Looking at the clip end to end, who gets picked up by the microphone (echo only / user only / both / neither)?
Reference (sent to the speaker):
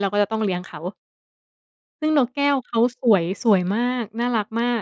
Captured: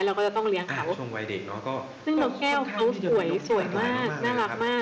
both